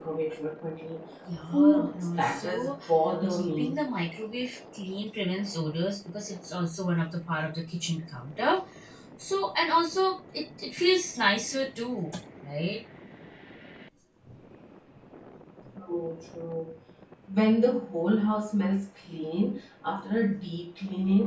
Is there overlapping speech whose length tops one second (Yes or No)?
Yes